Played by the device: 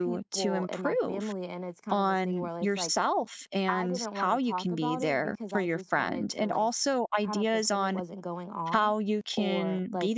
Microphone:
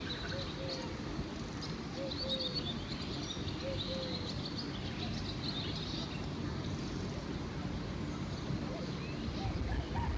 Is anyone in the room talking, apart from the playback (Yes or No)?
No